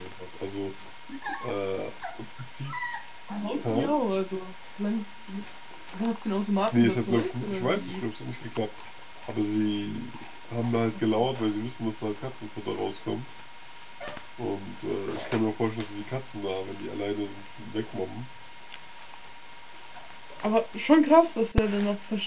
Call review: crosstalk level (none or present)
present